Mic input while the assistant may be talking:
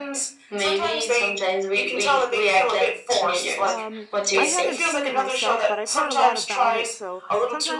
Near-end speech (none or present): present